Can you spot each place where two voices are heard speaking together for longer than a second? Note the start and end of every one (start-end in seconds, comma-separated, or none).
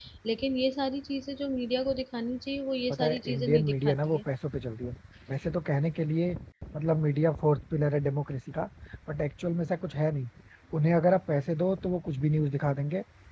2.9-4.2